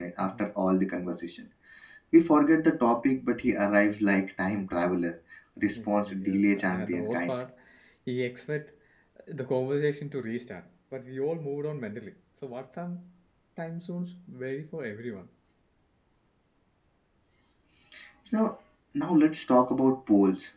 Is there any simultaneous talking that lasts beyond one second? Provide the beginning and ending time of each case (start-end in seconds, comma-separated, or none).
5.8-7.3